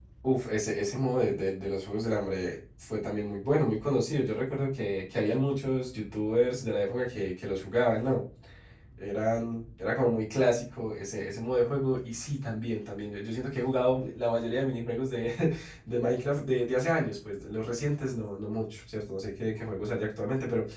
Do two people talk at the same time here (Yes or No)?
No